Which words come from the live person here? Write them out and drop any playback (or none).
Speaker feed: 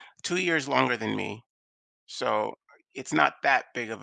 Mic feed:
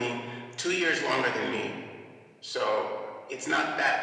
none